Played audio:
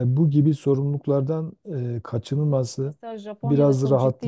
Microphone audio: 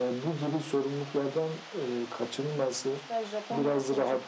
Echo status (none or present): present